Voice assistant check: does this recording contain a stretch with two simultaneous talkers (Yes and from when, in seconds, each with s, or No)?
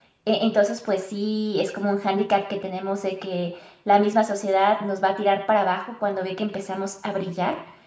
No